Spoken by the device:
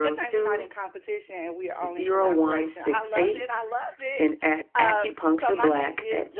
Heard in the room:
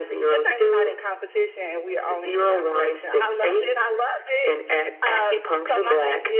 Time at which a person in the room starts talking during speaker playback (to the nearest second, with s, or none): none